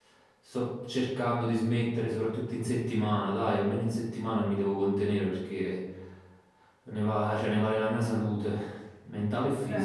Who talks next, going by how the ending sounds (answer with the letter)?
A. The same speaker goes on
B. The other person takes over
B